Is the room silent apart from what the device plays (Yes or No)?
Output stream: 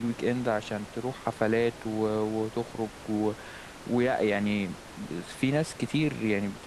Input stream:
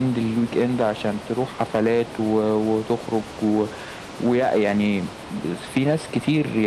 Yes